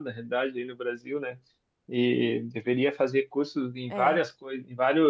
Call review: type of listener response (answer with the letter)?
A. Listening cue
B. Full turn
A